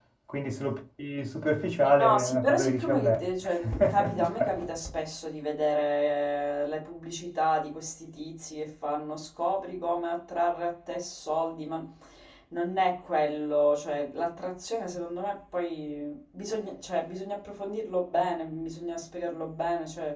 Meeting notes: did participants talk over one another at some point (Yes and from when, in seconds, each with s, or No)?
Yes, from 1.8 s